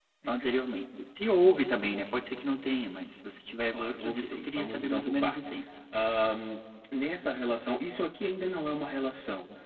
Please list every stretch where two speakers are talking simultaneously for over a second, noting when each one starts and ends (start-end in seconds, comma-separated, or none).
3.7-5.6